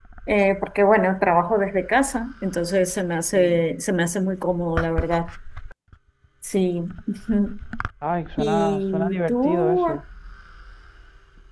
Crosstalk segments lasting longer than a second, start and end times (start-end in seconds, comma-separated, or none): 8.4-9.8